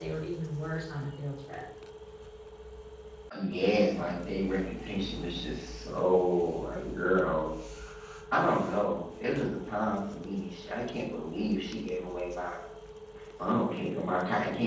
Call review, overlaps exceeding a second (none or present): none